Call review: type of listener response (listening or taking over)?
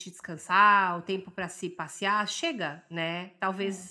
listening